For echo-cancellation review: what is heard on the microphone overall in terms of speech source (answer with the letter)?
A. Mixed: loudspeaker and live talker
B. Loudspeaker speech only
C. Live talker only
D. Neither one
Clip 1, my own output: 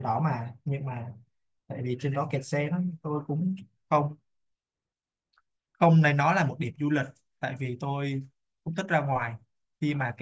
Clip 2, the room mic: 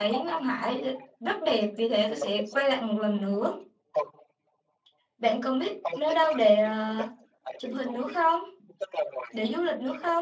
A